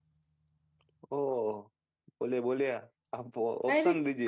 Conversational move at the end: taking over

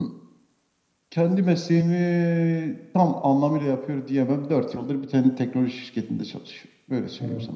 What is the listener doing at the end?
taking over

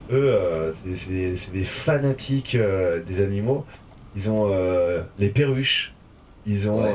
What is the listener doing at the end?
listening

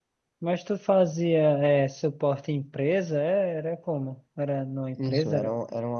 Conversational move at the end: taking over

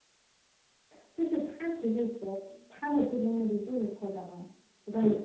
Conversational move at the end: taking over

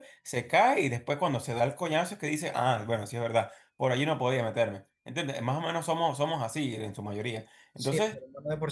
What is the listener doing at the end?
taking over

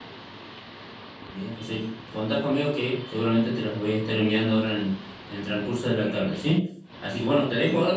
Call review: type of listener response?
listening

